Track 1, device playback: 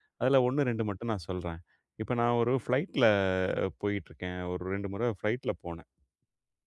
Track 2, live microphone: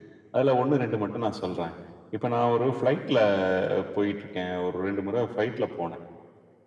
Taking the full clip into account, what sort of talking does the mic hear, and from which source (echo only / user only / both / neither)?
echo only